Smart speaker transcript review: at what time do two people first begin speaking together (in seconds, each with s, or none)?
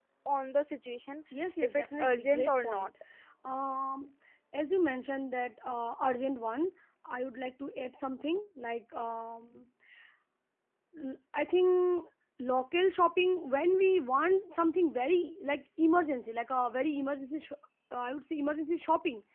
1.6 s